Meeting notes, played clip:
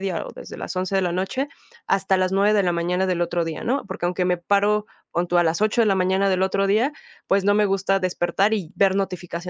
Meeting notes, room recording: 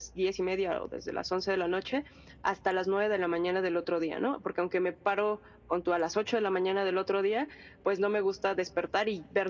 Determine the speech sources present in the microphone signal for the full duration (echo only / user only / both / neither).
echo only